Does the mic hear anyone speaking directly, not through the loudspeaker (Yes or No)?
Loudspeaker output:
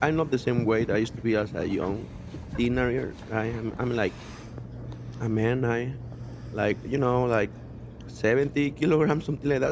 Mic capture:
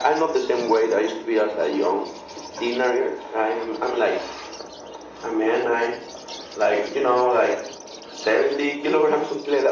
No